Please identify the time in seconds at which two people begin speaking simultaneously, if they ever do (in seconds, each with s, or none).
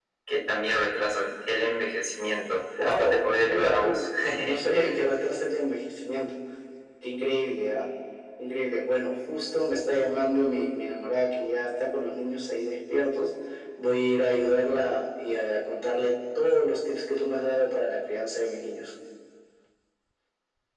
2.7 s